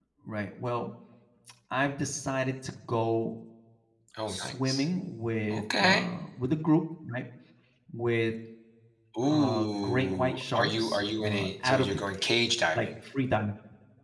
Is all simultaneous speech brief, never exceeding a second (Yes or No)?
No